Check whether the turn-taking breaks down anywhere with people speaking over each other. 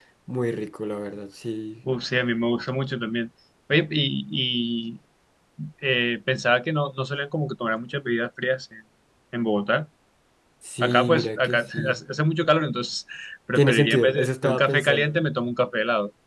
Yes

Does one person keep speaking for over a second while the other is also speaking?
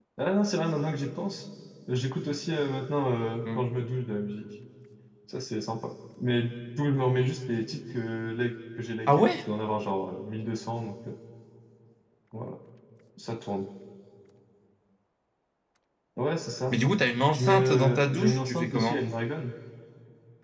Yes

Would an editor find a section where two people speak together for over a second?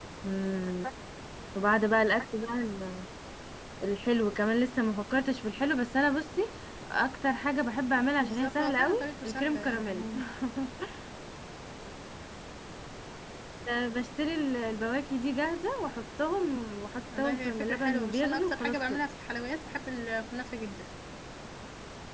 Yes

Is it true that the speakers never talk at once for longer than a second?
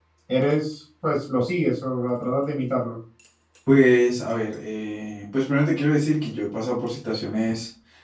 Yes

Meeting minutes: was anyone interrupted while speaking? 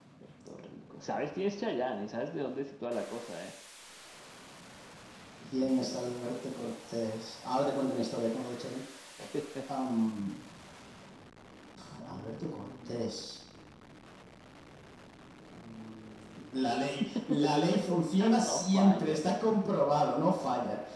Yes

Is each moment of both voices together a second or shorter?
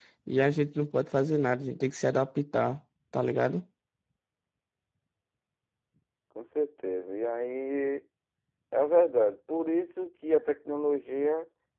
Yes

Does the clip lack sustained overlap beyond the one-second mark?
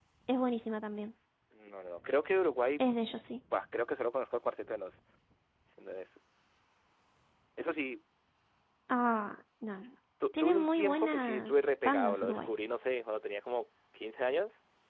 No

